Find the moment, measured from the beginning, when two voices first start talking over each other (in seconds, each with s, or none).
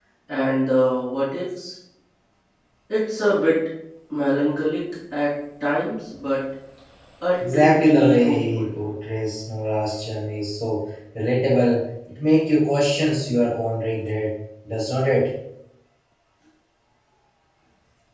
7.4 s